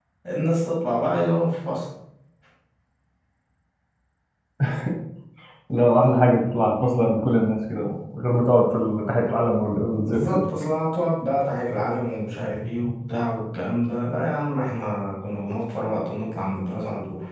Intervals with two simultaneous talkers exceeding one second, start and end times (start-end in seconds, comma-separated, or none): none